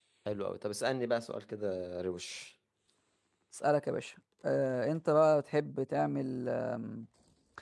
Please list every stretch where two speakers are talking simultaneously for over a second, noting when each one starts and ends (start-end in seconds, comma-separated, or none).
none